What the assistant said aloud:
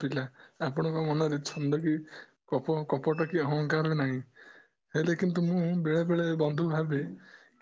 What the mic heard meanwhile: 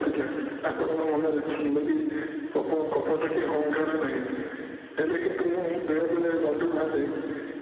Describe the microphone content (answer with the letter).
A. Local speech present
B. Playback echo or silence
B